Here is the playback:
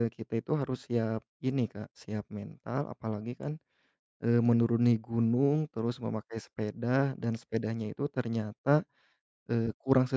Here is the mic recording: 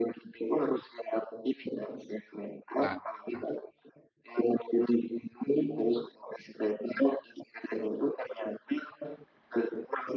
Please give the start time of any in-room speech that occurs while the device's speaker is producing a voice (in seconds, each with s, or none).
2.8 s